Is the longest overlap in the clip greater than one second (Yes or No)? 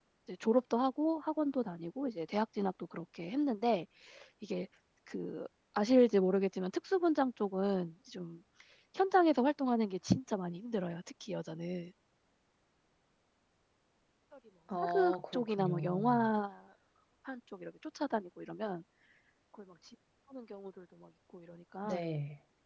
Yes